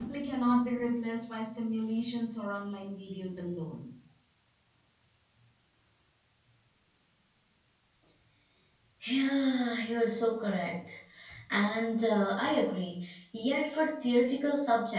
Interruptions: none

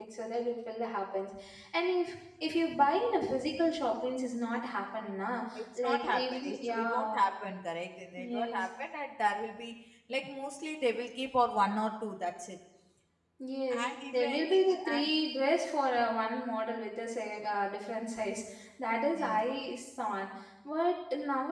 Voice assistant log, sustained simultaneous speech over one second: present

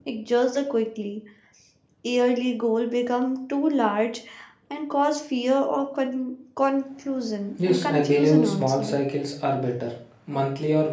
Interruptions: present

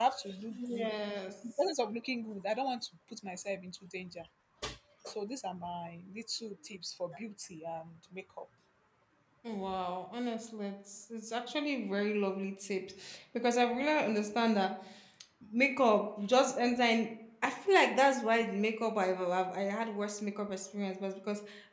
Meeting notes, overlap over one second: none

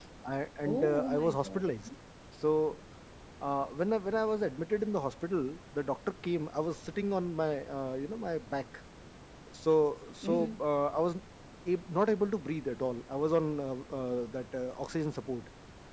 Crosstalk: present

